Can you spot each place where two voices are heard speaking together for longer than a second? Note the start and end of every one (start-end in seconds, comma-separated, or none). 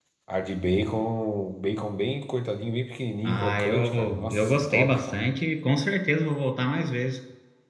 3.2-5.2